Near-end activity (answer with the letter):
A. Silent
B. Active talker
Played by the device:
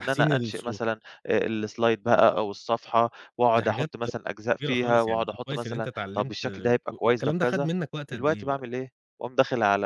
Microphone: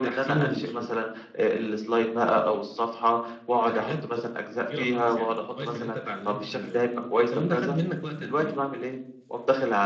A